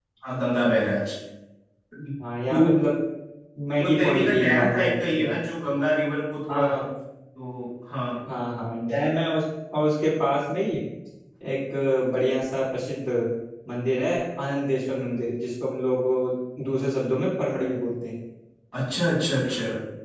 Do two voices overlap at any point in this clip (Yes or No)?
Yes